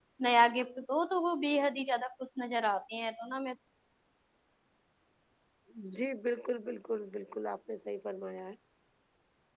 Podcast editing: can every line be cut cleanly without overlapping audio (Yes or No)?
Yes